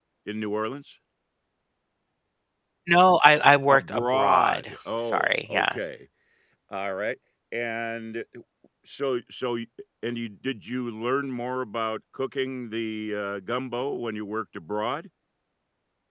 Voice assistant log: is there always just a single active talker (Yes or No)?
No